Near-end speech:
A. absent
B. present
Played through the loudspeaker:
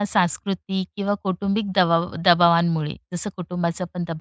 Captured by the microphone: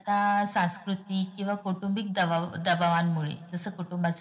A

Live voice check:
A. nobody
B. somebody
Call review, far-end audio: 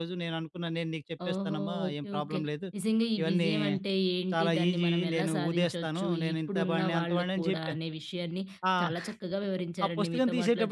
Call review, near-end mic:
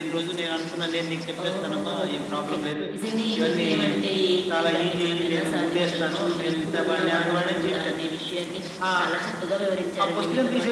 A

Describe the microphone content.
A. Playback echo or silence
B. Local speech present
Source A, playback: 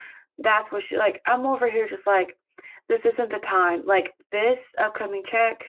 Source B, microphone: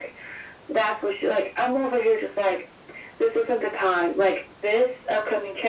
A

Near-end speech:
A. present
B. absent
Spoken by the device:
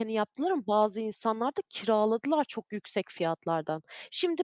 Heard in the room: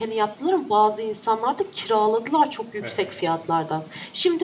A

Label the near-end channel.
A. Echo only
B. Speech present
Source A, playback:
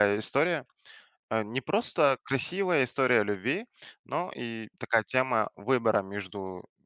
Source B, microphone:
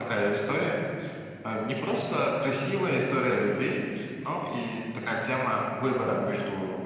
A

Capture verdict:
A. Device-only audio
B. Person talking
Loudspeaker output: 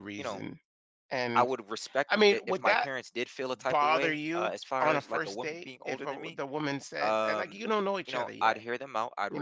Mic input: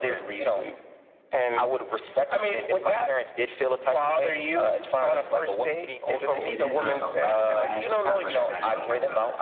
B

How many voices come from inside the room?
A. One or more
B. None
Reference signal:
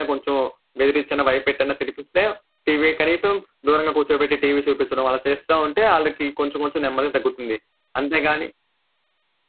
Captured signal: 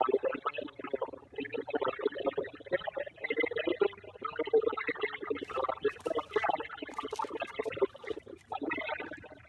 B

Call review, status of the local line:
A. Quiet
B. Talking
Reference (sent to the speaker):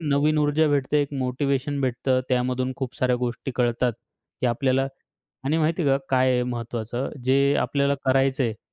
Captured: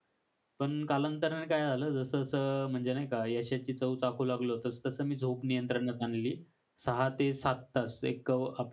B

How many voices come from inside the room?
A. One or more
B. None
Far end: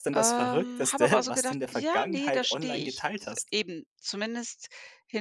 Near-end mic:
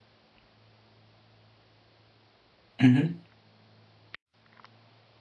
A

